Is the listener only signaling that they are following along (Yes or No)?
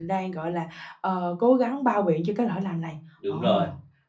No